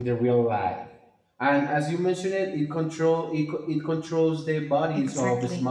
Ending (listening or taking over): taking over